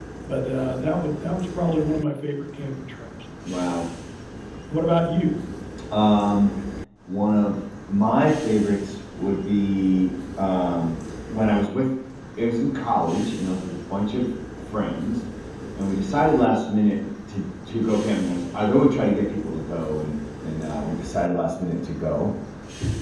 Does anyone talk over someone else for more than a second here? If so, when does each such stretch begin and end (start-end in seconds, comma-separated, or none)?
none